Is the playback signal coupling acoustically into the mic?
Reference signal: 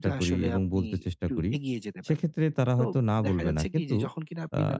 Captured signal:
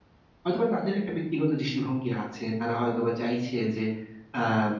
No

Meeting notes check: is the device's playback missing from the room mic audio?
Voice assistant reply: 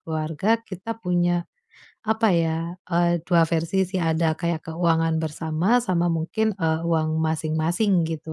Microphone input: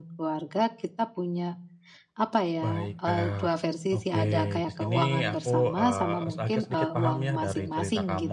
No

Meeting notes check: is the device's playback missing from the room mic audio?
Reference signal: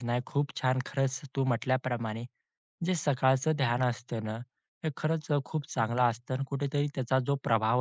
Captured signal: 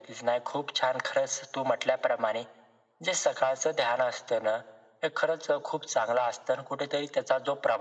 No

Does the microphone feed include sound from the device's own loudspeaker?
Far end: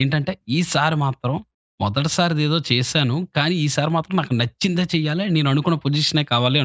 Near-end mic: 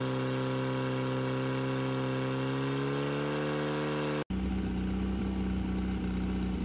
No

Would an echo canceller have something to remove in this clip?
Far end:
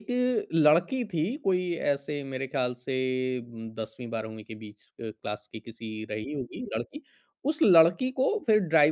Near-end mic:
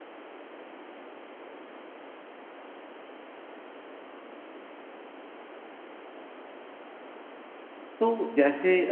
No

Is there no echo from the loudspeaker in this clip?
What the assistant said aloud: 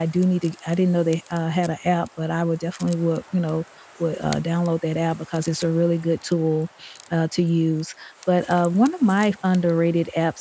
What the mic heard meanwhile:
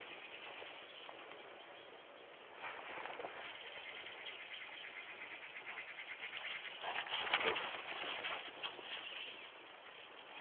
Yes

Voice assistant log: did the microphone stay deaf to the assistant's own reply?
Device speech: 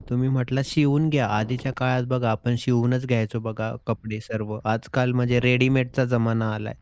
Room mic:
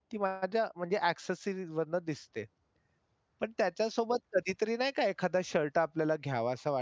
Yes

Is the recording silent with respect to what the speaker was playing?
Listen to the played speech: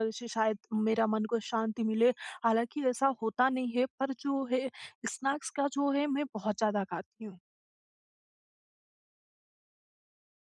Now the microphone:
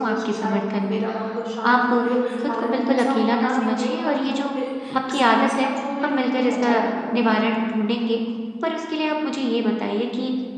No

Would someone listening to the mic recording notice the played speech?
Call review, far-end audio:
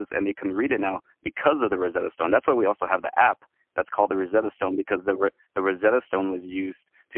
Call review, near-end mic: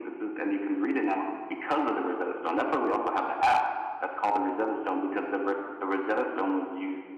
Yes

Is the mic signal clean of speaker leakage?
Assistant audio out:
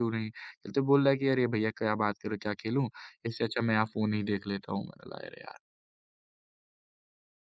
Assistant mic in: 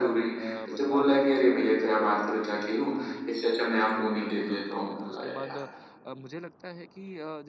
No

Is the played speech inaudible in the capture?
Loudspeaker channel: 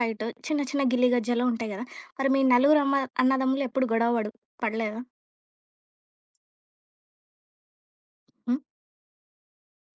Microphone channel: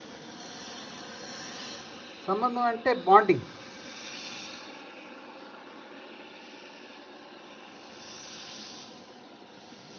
Yes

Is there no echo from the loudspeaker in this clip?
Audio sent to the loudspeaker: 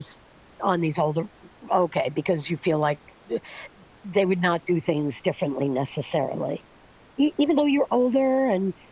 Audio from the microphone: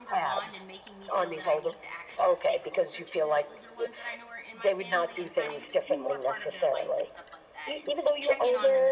No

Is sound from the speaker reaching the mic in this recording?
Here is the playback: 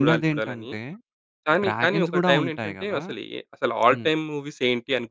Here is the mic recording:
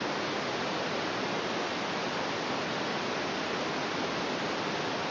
No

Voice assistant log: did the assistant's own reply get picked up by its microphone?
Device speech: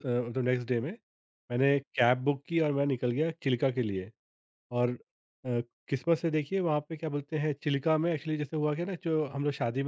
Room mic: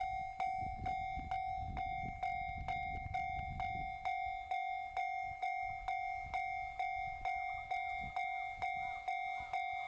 No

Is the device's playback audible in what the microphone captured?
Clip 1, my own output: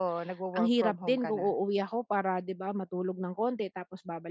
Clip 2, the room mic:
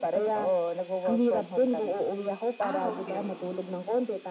Yes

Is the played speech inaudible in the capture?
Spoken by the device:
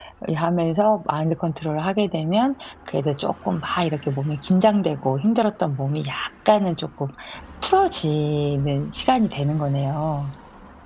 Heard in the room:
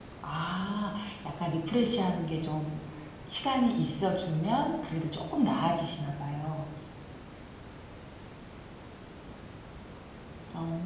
Yes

